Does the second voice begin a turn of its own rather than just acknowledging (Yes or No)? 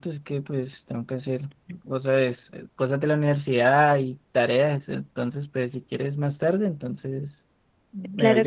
Yes